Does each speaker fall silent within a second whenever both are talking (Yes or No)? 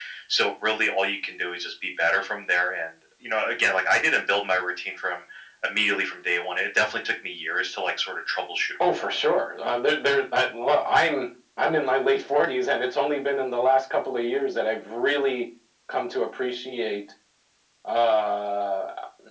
Yes